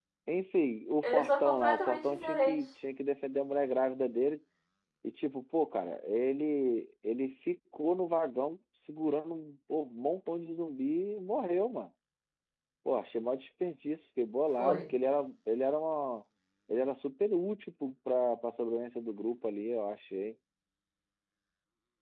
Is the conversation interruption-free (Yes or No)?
No